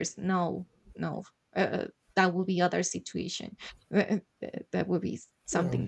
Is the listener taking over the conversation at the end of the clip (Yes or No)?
No